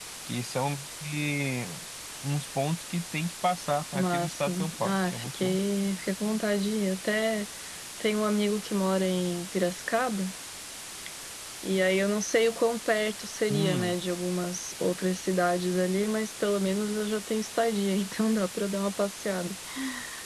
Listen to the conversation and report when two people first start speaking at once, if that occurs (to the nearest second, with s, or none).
4 s